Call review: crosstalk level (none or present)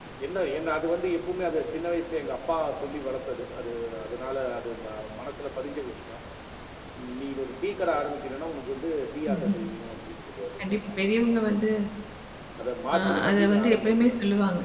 present